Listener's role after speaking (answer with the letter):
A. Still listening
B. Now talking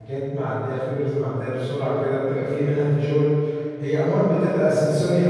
A